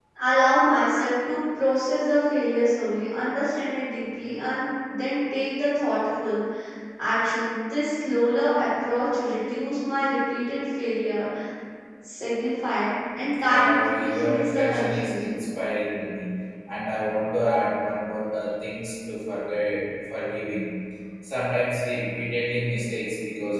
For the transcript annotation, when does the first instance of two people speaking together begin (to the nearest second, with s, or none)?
13 s